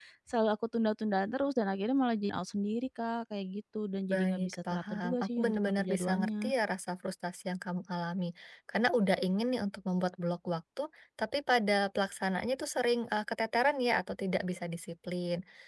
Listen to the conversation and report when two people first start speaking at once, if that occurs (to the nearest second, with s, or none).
4 s